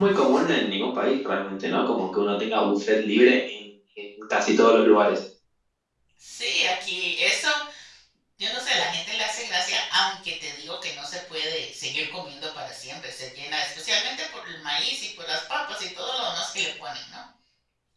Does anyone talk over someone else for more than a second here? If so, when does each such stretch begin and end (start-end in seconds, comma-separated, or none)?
none